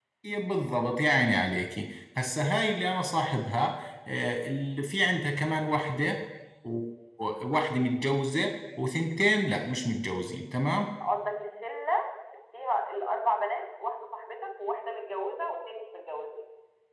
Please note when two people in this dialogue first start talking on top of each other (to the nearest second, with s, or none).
none